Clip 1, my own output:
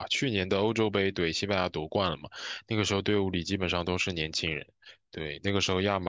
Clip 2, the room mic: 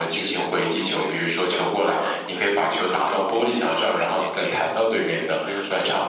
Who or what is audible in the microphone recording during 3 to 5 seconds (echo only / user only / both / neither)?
both